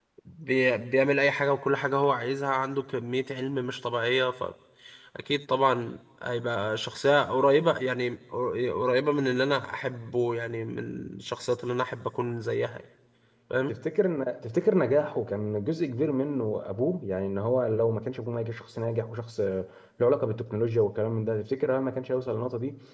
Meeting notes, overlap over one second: none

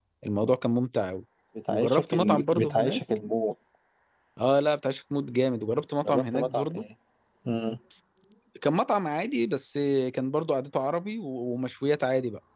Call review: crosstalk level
present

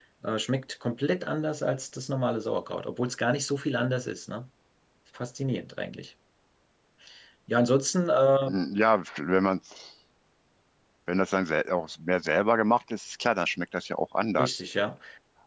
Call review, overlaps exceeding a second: none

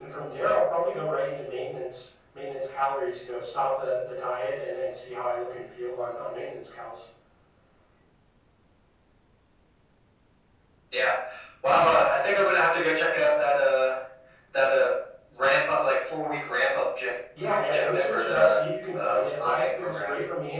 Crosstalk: present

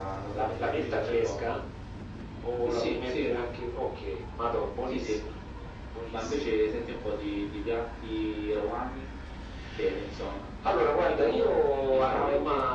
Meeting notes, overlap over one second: present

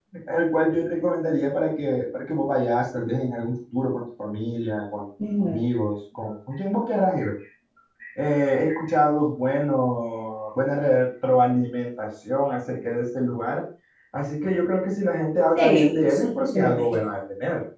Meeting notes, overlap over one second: present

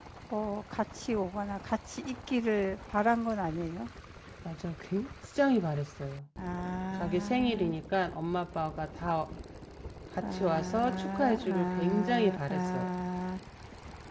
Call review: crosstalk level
present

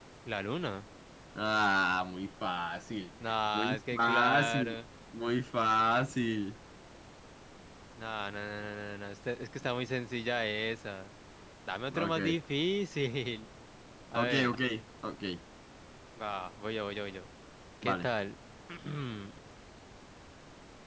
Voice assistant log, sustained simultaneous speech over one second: present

